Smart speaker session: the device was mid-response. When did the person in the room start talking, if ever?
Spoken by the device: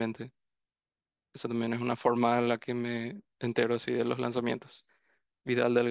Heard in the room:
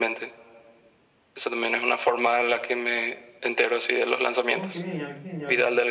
4.5 s

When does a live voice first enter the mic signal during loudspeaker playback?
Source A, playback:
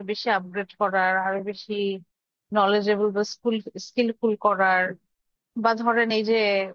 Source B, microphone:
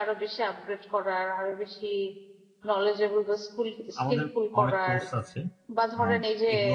4.0 s

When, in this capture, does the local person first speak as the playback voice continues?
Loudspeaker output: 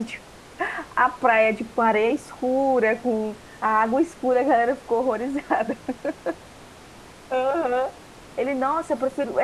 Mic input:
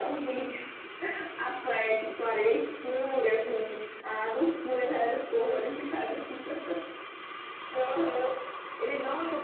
none

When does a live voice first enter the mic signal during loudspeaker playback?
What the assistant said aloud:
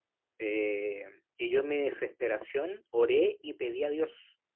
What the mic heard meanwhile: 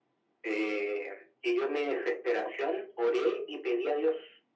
none

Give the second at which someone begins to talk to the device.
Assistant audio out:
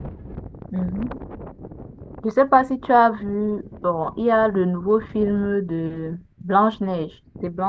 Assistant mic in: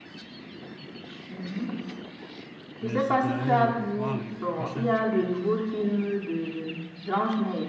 2.8 s

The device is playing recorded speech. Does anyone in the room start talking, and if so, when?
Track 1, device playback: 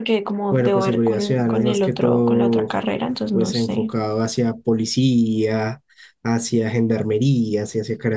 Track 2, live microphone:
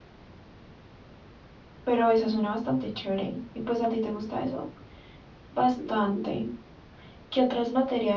1.8 s

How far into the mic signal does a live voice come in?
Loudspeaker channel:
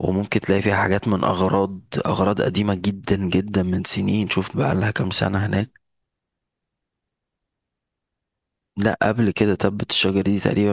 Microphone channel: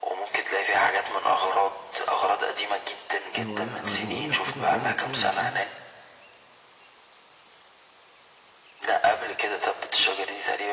3.4 s

